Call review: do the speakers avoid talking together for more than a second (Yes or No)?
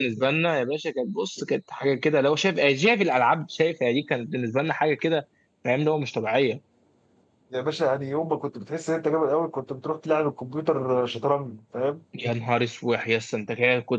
Yes